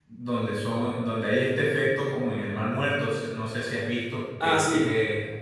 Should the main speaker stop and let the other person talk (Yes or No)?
No